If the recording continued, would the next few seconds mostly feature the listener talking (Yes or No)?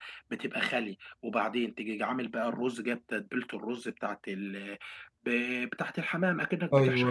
No